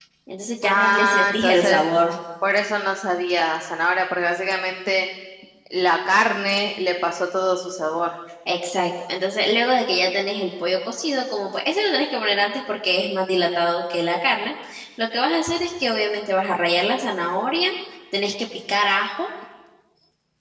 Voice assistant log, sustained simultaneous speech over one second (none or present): present